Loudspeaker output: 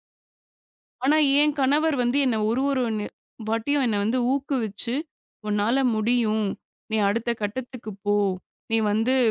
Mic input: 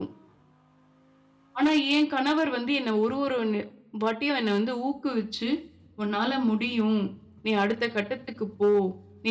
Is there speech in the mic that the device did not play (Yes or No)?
No